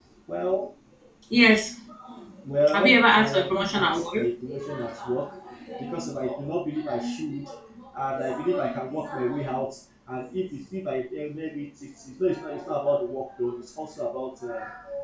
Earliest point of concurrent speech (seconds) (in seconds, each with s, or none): 2.7 s